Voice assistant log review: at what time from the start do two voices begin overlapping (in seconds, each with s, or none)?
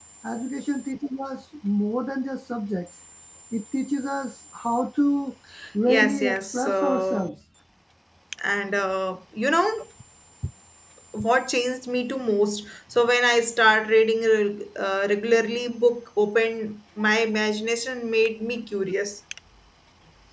5.9 s